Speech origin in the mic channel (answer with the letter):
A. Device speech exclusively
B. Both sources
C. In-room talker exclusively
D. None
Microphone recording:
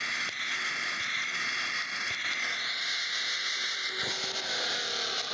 D